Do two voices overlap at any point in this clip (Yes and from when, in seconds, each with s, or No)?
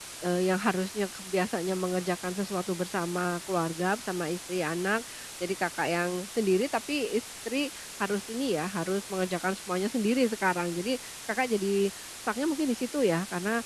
No